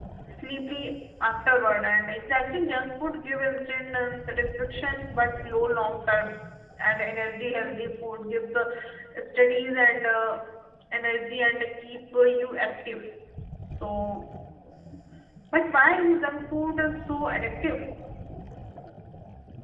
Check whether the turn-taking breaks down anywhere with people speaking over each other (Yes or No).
No